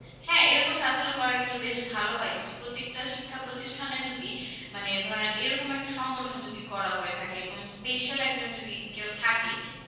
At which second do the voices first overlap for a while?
none

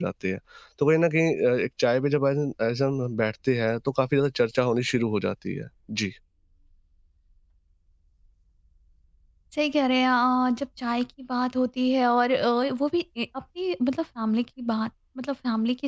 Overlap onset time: none

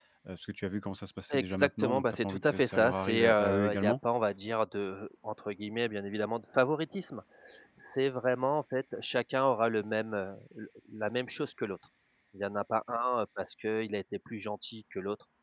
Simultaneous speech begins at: 1.3 s

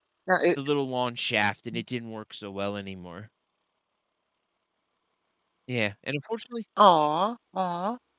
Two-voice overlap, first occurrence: none

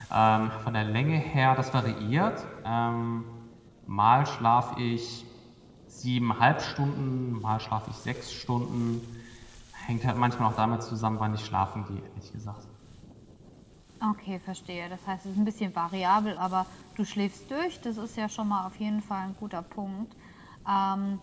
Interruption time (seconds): none

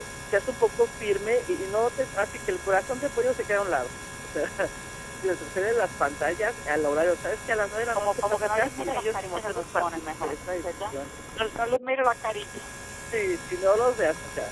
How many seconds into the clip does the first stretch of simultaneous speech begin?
8.0 s

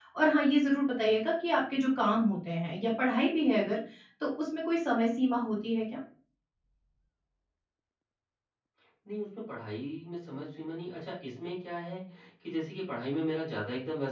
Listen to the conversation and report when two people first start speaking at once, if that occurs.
none

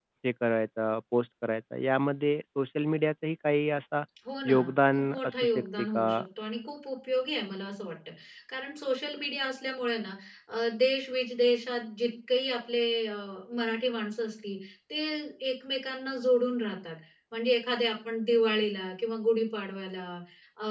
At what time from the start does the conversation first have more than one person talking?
4.4 s

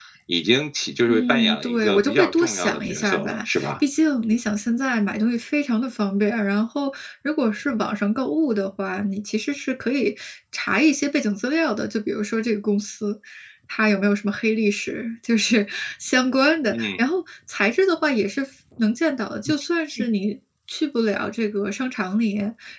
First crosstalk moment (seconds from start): 1.1 s

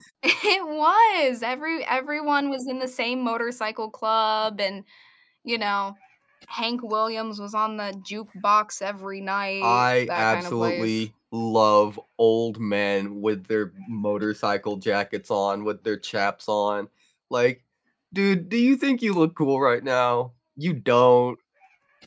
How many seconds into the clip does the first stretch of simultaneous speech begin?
9.6 s

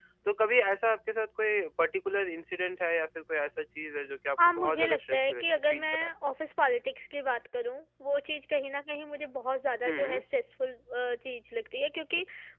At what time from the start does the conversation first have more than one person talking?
4.4 s

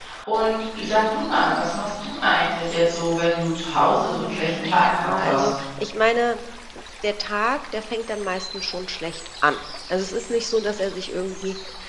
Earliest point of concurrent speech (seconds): 4.1 s

